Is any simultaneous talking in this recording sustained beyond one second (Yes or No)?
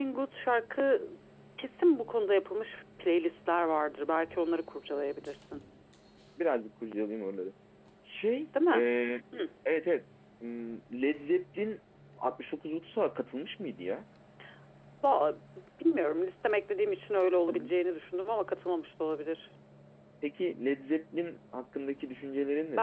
No